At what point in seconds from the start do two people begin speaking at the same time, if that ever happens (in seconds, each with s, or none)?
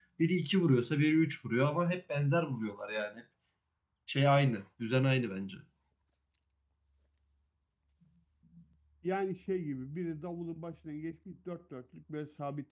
none